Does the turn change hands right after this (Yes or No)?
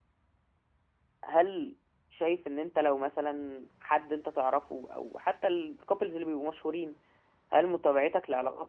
No